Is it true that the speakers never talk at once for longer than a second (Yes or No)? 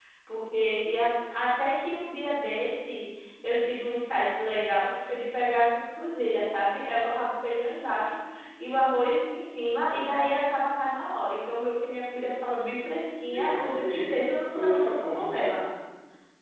No